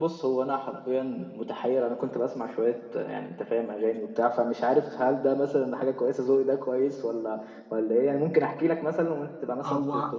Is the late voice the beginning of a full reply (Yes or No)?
Yes